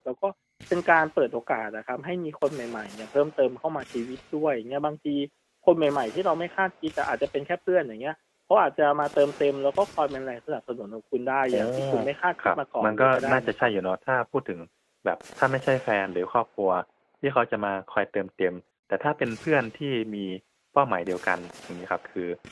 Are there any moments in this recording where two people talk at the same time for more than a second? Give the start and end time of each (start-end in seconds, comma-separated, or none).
12.4-13.7